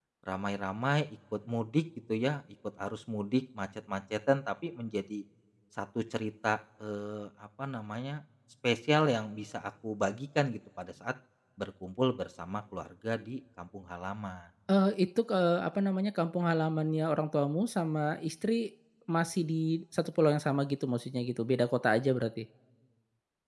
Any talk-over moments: No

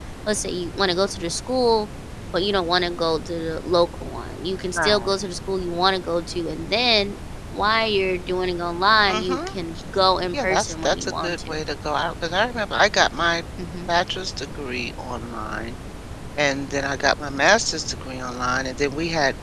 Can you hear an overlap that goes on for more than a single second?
Yes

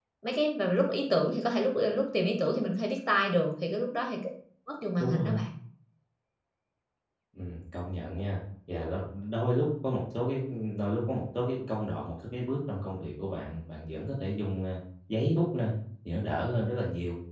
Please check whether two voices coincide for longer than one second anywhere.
No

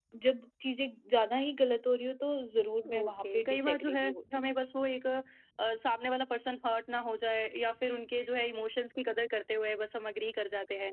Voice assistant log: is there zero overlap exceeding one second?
No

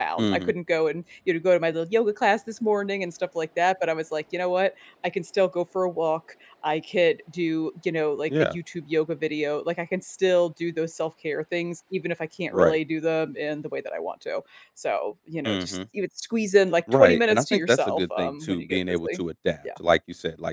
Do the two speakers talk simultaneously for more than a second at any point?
Yes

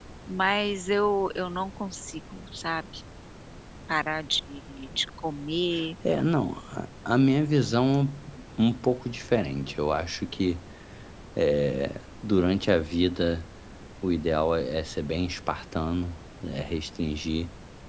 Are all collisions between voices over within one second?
Yes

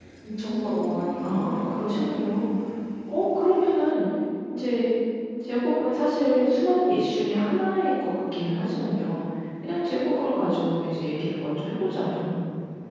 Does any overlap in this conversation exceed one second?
Yes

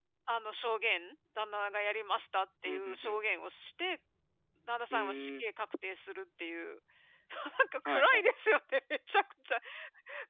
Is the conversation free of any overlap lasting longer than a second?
Yes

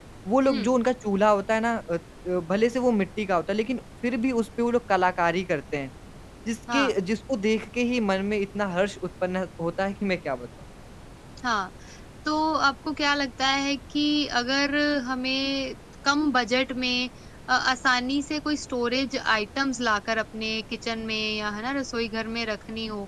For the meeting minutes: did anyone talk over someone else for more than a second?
No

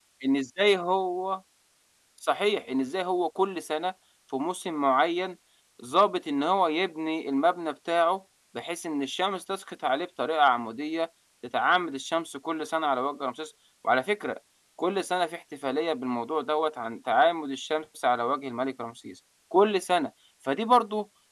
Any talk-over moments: No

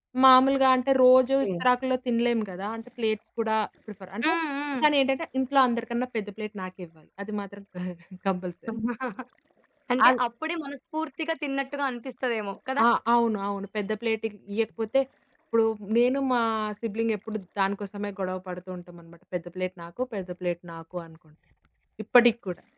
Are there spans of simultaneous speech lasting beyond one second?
No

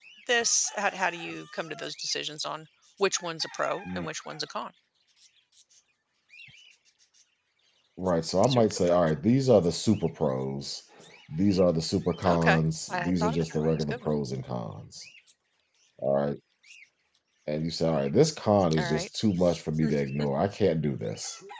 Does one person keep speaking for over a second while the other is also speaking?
Yes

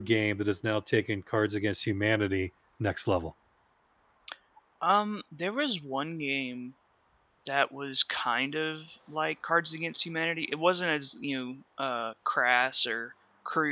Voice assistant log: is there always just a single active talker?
Yes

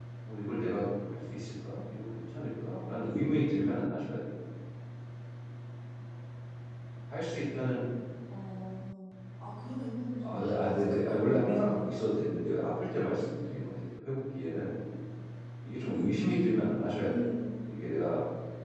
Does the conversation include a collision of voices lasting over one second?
Yes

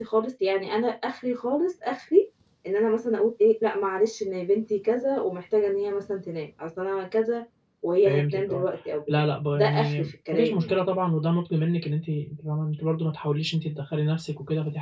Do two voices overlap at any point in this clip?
Yes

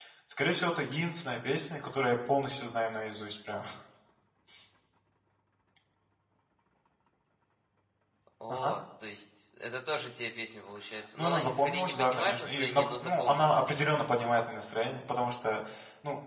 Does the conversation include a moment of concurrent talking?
Yes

